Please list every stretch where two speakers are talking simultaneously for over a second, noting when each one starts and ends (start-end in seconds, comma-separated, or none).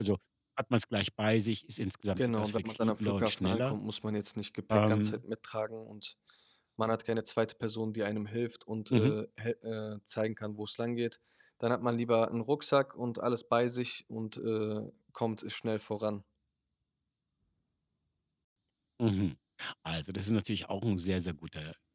2.2-3.8